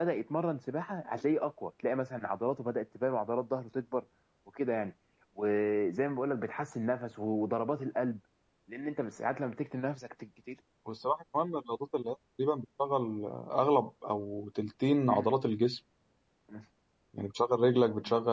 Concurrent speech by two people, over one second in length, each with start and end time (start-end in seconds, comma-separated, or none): none